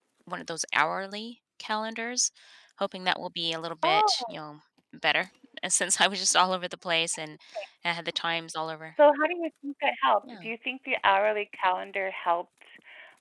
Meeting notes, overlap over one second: none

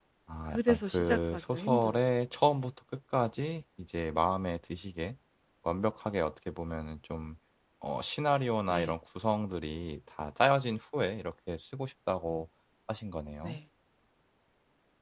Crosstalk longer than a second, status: present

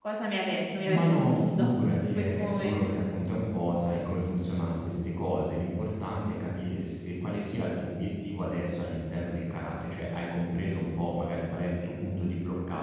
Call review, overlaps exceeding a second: present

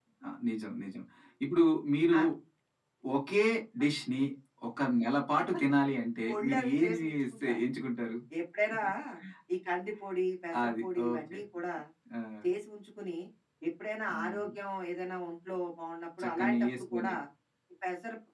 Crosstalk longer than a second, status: present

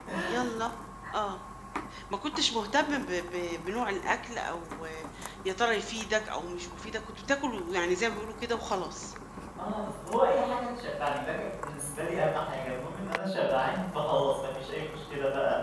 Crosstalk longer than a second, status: none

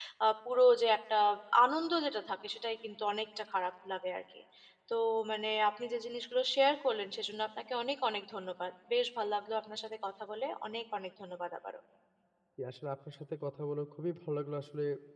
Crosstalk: none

